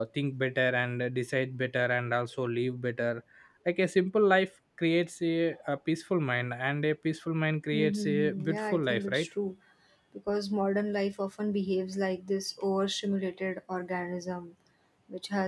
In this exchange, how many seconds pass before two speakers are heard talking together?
7.7 s

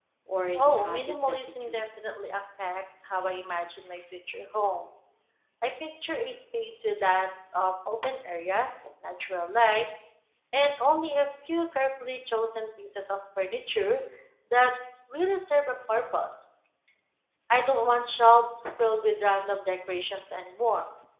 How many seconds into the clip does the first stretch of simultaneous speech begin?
0.6 s

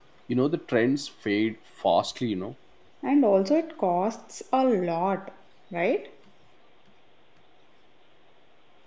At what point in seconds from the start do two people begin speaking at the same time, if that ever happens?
none

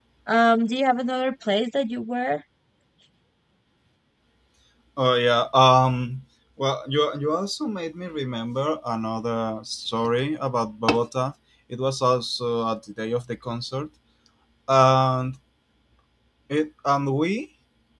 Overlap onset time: none

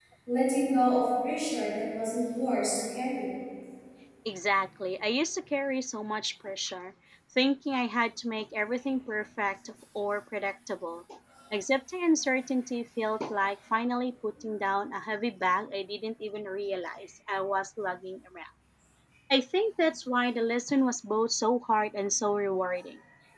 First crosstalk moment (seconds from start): none

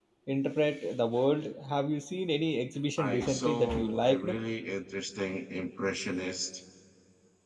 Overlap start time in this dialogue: 3.0 s

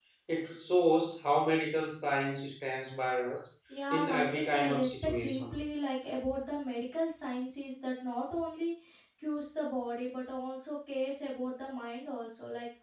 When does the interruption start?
3.7 s

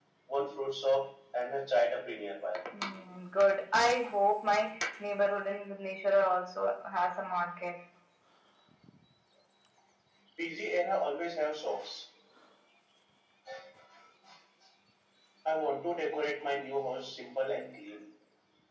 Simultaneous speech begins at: none

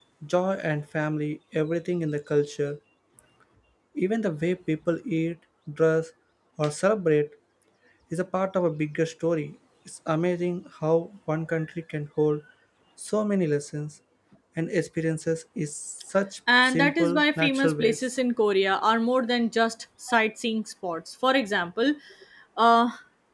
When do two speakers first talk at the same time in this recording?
16.5 s

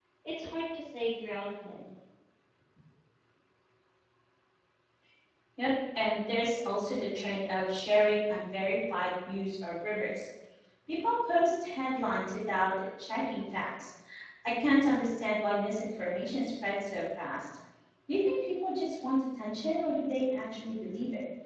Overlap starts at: none

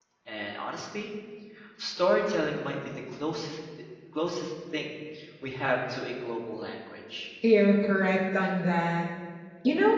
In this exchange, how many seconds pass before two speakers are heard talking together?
none

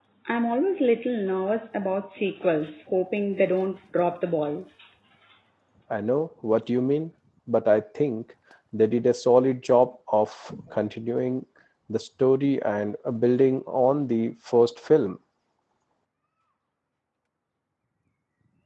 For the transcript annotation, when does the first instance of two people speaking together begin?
none

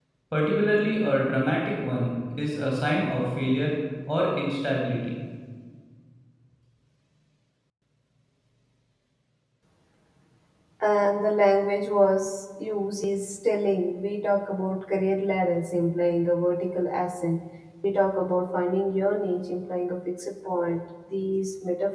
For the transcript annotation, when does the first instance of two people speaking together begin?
none

